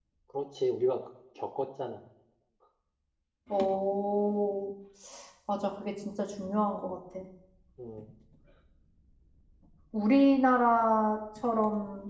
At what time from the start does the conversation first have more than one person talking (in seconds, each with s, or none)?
none